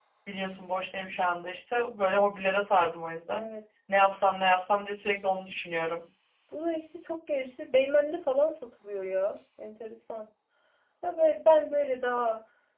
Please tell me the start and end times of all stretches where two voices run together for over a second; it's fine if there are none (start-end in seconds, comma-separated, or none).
none